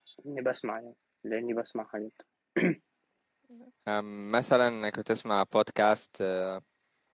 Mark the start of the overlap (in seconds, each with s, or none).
none